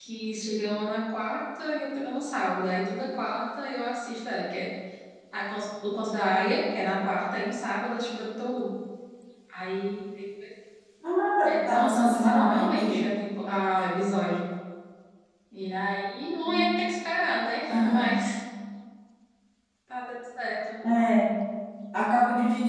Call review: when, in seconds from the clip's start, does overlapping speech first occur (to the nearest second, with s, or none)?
11 s